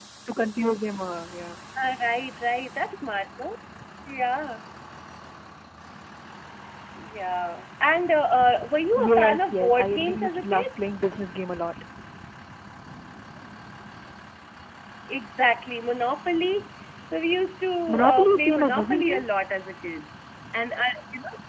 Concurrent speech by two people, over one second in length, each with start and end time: 9.0-10.7, 17.9-19.2

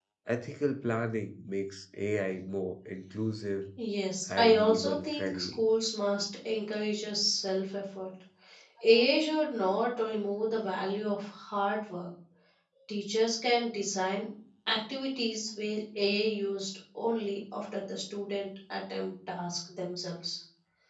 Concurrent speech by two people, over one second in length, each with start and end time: 4.3-5.6

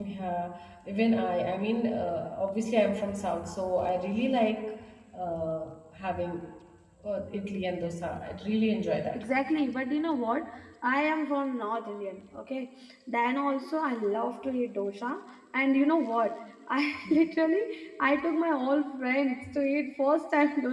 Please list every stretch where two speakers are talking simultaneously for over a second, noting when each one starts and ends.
none

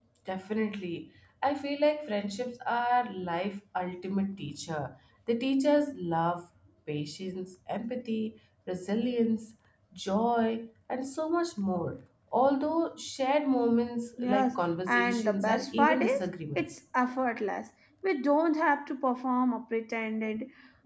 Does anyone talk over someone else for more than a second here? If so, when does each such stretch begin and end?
14.2-16.7

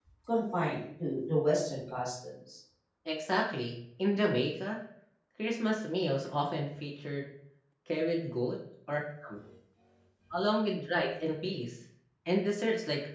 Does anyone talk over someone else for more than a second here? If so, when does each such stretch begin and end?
none

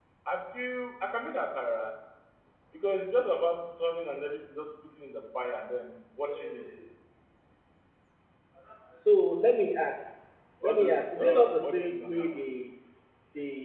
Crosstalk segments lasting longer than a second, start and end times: 10.6-12.1

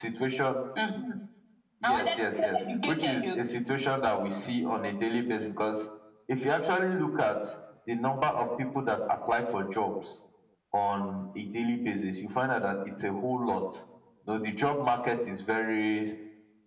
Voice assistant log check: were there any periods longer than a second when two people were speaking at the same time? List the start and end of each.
1.8-3.4

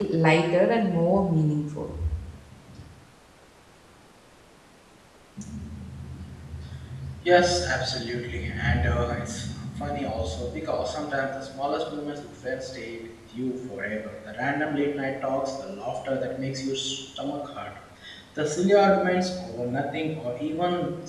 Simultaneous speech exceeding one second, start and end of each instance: none

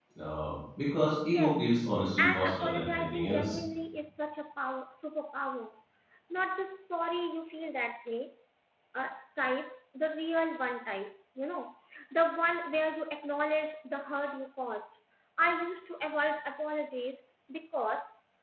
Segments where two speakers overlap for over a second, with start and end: 2.2-3.6

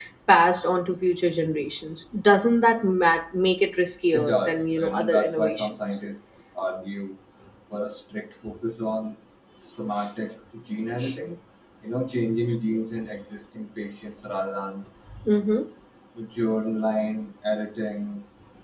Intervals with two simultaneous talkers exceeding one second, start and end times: 4.1-6.0

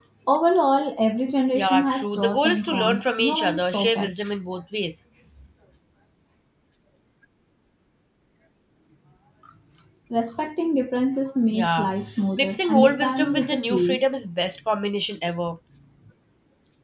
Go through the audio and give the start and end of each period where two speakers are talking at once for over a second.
1.6-4.1, 12.4-14.0

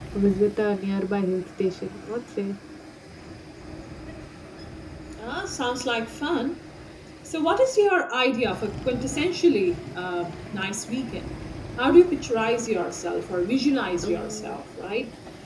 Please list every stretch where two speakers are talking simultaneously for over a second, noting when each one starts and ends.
none

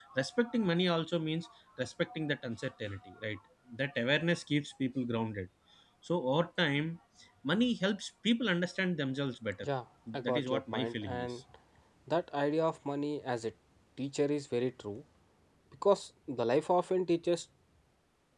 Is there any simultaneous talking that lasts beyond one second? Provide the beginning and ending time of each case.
10.1-11.4

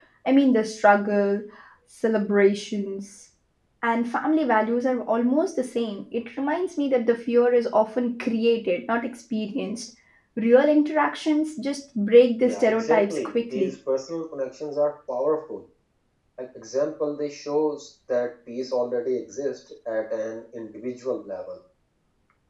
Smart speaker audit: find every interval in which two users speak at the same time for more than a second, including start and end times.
12.4-13.7

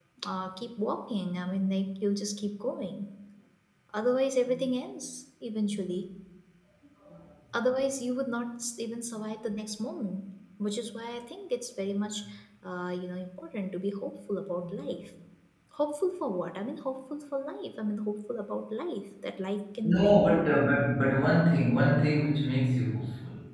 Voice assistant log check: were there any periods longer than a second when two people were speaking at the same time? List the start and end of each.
none

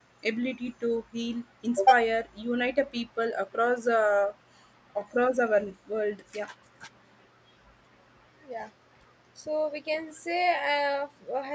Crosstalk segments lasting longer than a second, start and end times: none

